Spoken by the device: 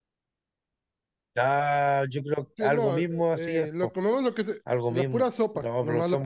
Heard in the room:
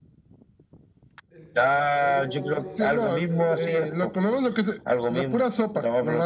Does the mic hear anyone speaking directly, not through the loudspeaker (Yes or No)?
Yes